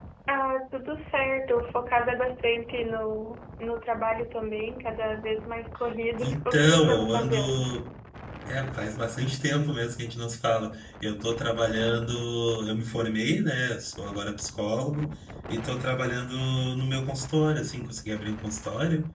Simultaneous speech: Yes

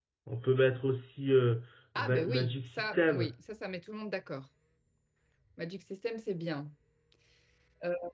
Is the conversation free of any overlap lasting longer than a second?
No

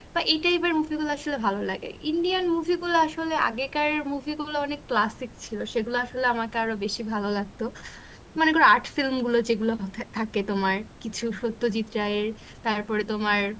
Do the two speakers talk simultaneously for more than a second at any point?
No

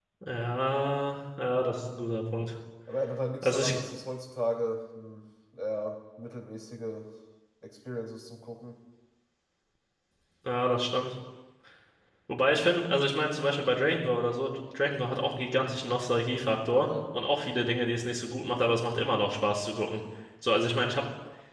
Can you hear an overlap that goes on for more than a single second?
No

